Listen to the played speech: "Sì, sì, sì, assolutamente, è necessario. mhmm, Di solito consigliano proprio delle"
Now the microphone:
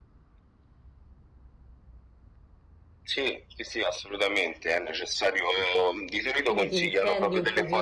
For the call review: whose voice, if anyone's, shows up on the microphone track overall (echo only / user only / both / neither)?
both